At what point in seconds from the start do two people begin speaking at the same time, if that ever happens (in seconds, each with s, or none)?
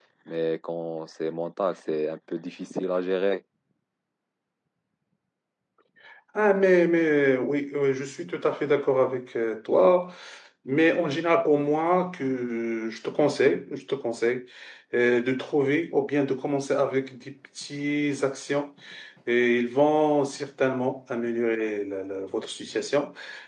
none